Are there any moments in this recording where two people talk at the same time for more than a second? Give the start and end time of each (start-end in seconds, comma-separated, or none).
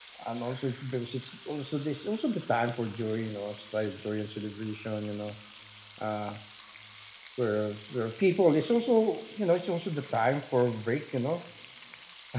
none